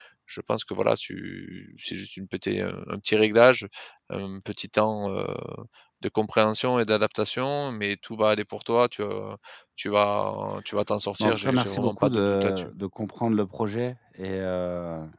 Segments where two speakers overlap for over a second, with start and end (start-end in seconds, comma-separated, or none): 11.2-12.7